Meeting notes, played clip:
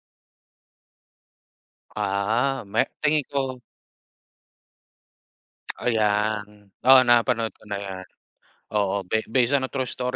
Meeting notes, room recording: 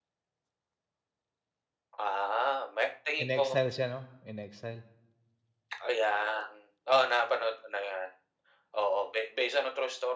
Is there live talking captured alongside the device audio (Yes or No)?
Yes